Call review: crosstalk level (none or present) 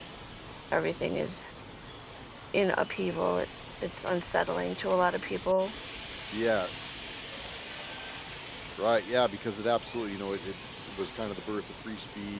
none